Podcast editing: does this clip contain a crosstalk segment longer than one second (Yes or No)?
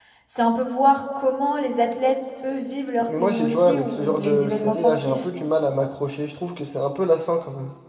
Yes